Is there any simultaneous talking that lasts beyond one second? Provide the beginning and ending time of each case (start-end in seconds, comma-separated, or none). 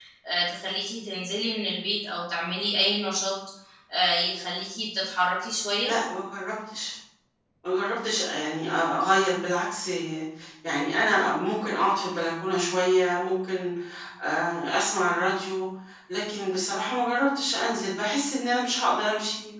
none